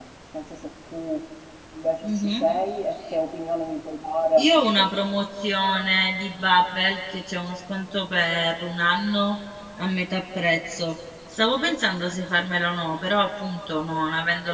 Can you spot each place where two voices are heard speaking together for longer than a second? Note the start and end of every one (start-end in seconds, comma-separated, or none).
none